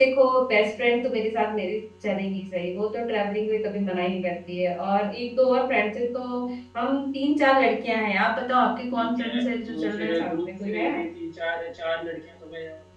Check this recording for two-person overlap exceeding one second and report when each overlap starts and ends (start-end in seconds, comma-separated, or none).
9.0-10.9